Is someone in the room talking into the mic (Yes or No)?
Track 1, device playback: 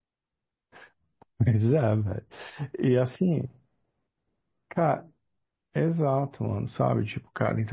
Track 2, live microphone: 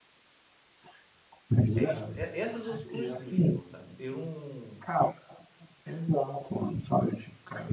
Yes